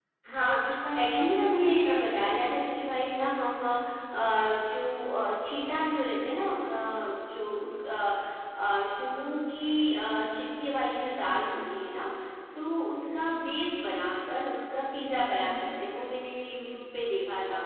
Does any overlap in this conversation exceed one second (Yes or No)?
Yes